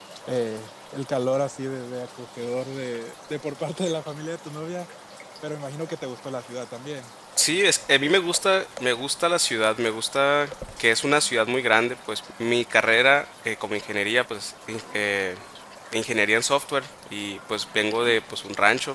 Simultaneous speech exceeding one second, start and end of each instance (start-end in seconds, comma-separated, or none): none